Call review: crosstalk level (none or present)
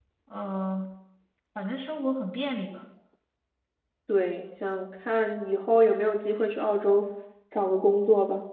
none